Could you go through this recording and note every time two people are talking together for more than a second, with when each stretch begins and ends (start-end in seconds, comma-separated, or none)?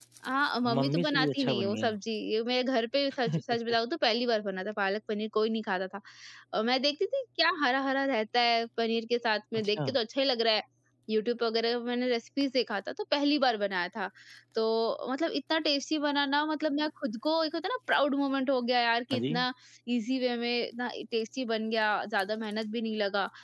0.8-2.0